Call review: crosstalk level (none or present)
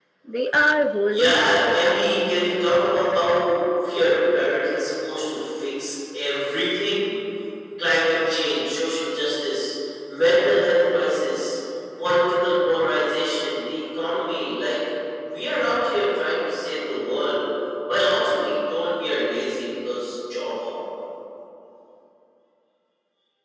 present